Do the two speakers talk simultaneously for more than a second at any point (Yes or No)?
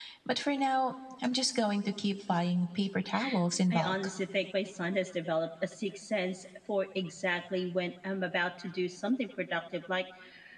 No